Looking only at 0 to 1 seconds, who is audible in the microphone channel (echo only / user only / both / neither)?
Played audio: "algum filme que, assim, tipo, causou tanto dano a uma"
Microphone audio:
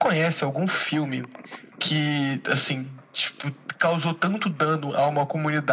echo only